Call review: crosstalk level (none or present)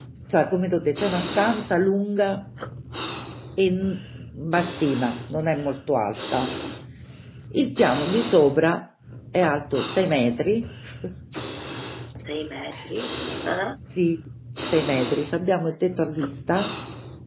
none